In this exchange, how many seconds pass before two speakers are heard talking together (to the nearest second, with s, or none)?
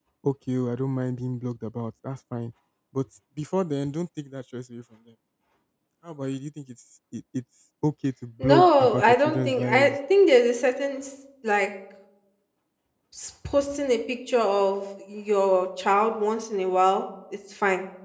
8 s